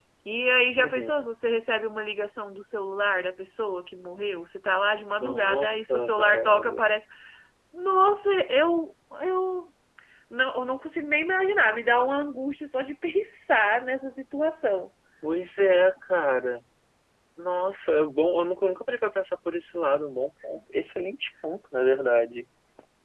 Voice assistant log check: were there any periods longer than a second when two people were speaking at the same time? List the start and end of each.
5.2-6.7

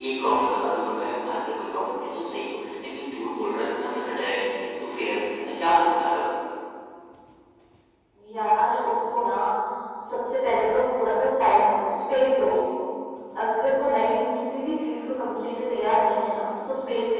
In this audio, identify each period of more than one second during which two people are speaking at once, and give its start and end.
none

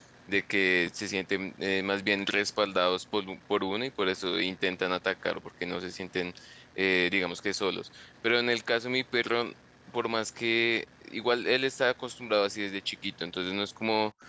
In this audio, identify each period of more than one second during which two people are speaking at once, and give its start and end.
none

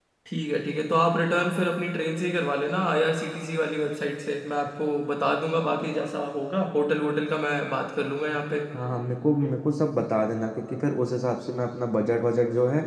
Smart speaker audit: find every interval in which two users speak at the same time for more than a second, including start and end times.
none

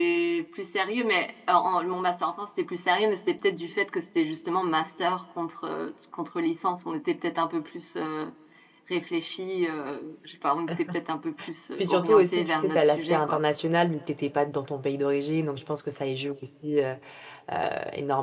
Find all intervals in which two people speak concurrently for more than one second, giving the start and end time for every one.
11.8-13.4

